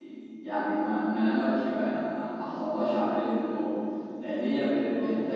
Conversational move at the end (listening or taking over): listening